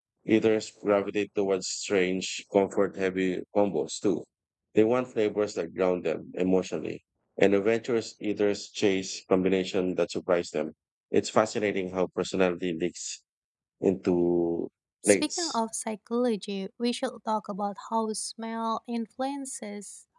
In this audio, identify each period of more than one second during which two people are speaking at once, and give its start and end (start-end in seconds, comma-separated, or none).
none